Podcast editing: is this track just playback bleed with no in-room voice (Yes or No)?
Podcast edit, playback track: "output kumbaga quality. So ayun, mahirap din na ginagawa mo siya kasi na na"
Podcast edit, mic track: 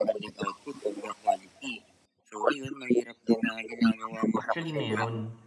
No